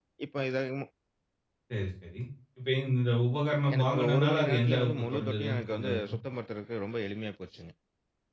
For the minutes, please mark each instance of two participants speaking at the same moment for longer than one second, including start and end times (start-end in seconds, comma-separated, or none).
3.7-6.1